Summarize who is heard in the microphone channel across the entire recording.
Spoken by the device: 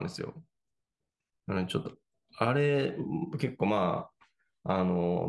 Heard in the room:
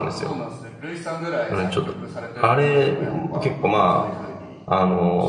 both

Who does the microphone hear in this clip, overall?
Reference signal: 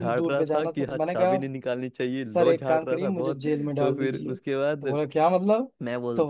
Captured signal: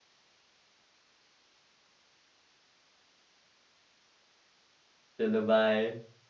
user only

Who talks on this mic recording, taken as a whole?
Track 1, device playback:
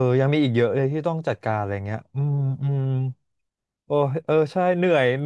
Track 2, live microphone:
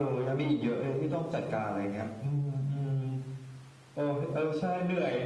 echo only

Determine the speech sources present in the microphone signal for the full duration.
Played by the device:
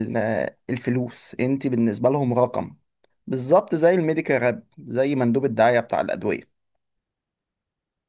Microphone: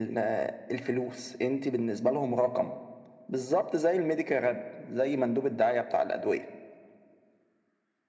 echo only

